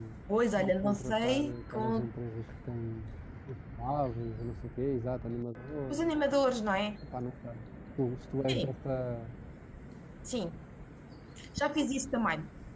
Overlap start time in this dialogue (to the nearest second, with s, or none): 1 s